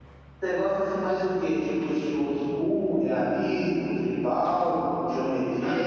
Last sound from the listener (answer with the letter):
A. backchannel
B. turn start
A